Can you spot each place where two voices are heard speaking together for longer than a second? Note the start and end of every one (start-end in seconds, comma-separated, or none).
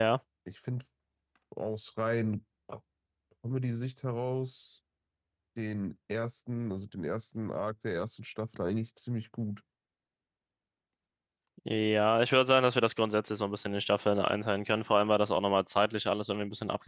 none